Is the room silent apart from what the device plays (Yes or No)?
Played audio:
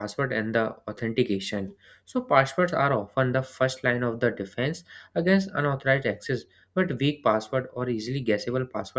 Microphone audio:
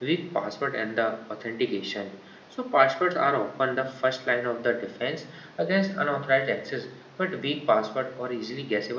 Yes